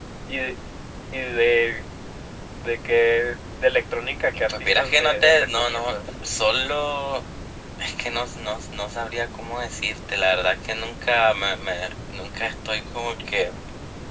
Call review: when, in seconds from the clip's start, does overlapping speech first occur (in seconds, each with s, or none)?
4.5 s